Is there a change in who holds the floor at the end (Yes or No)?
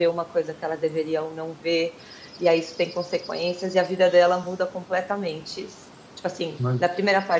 No